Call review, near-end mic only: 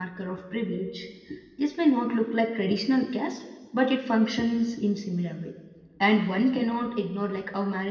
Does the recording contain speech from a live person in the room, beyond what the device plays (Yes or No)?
Yes